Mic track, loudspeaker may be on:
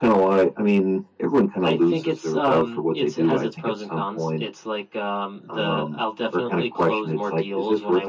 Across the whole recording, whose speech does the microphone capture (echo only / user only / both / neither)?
echo only